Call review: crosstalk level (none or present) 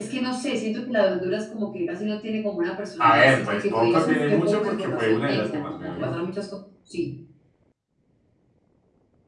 present